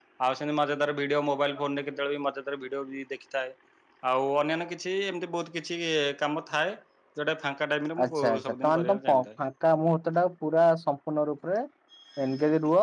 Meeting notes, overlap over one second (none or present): present